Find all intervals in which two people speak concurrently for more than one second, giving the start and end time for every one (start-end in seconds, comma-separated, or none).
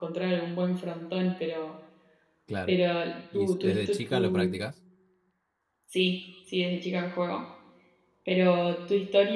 3.3-4.6